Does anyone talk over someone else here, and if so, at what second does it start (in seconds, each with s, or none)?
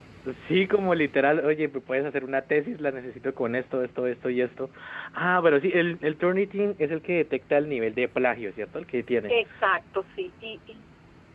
none